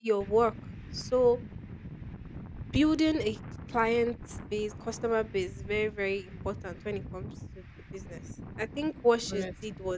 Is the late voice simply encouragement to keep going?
Yes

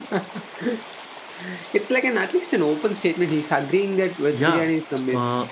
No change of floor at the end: No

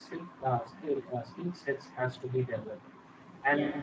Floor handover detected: No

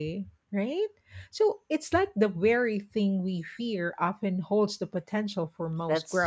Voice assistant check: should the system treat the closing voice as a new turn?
Yes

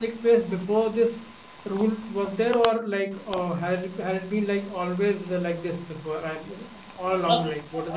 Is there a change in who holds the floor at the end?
Yes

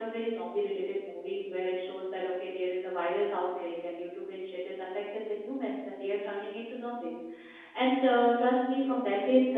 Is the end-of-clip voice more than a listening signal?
No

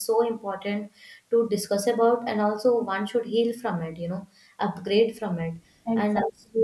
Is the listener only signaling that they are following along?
No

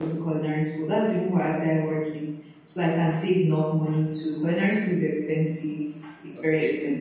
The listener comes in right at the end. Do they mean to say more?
No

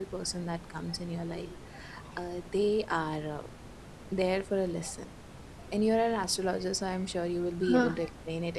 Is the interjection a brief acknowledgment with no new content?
Yes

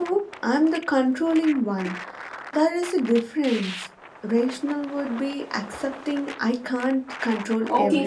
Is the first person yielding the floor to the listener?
Yes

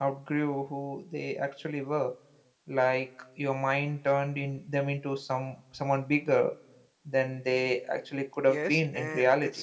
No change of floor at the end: No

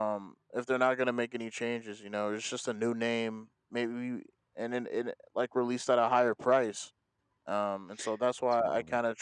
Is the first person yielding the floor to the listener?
No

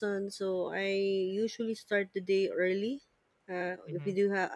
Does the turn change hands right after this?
No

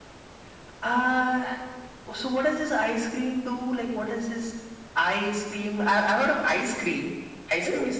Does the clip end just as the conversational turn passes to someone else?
Yes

